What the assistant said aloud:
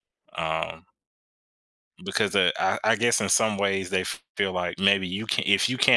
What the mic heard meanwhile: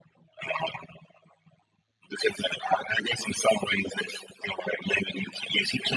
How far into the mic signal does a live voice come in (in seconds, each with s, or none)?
none